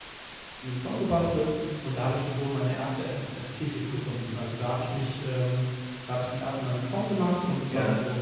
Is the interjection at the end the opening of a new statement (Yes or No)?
No